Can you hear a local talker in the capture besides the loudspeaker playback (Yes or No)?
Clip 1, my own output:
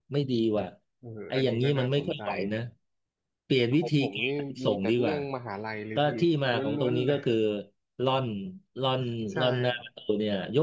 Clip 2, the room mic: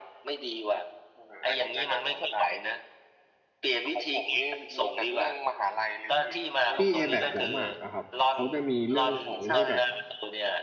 Yes